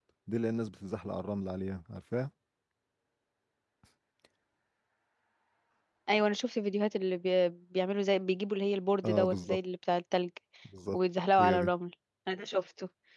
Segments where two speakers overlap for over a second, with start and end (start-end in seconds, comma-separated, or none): none